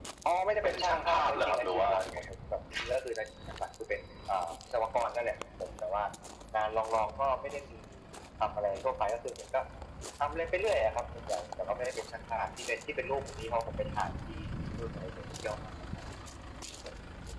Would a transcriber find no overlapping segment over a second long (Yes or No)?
No